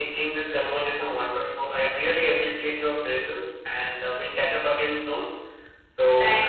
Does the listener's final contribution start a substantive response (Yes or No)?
Yes